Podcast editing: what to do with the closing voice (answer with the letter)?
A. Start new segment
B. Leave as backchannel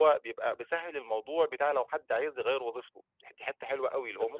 A